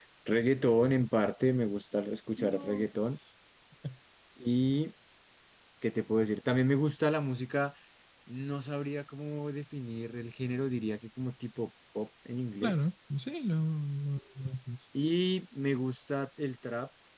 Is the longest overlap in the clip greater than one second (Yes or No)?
No